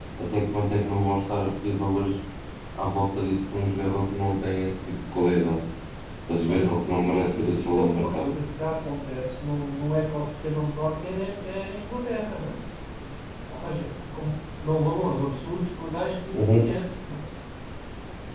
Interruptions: present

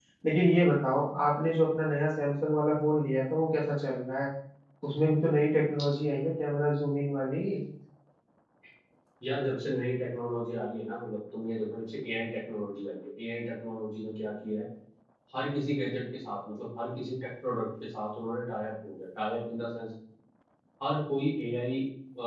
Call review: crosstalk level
none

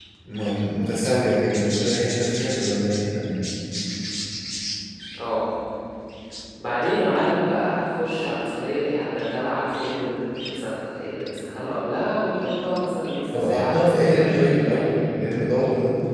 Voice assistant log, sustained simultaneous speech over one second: present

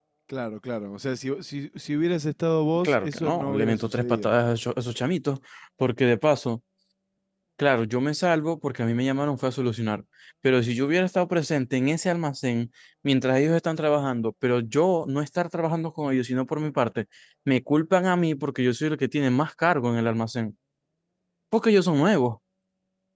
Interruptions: present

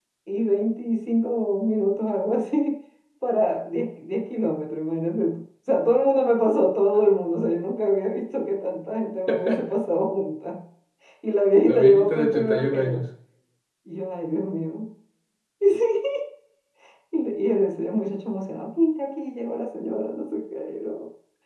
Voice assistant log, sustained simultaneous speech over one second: present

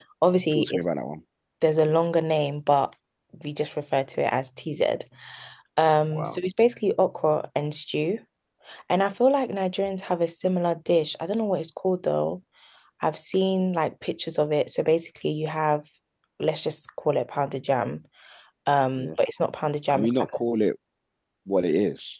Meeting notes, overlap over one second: none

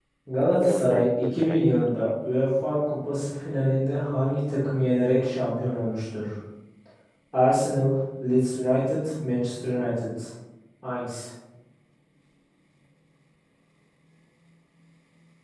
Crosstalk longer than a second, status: present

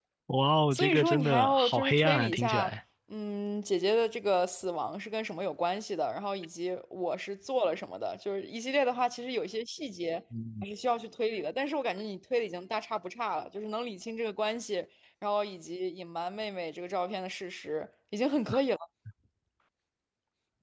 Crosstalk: present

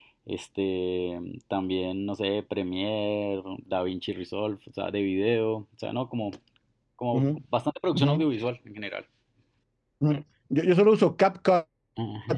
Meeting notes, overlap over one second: none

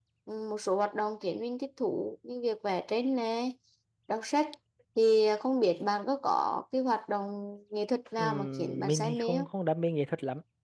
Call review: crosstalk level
present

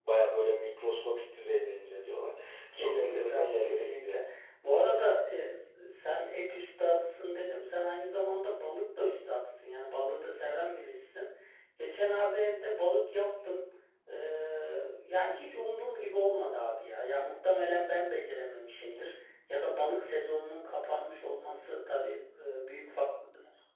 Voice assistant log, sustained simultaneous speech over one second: present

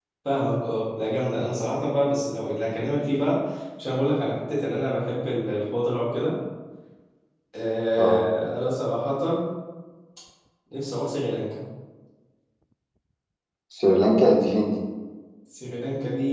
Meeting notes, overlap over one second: none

